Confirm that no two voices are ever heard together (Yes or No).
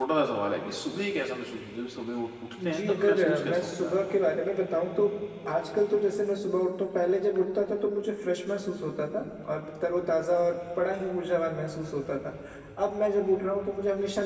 No